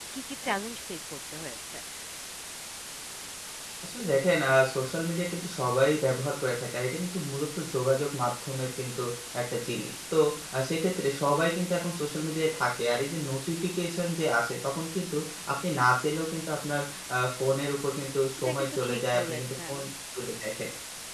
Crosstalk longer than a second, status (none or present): present